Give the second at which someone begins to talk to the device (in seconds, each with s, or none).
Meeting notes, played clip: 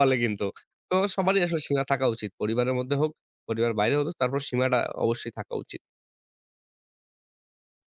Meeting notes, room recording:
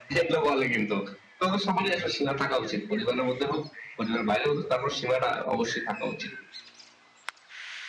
none